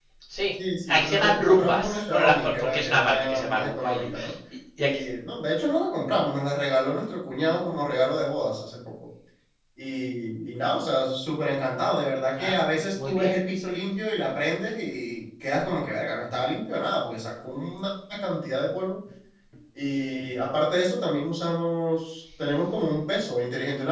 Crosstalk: present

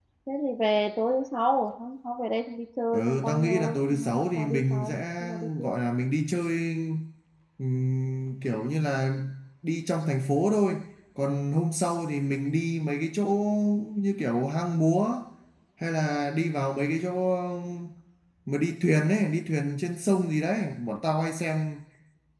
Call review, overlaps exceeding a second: present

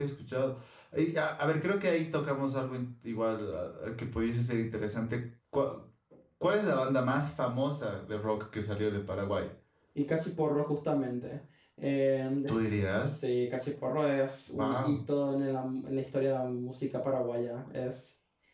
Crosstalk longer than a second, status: none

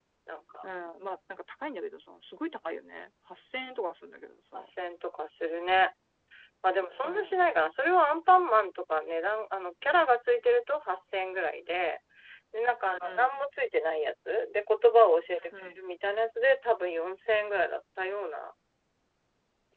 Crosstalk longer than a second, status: none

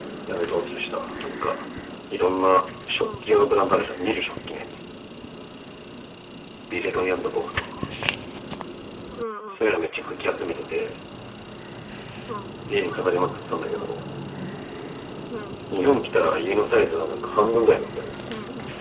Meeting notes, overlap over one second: none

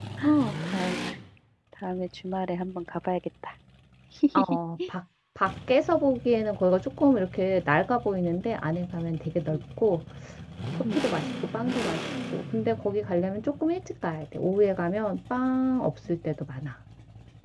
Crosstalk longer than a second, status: none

